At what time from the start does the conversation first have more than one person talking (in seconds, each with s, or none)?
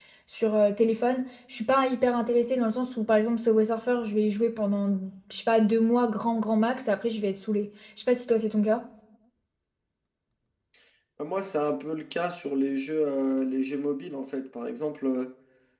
none